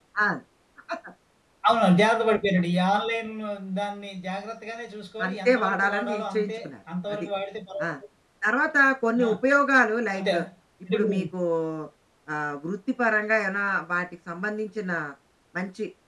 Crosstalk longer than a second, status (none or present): present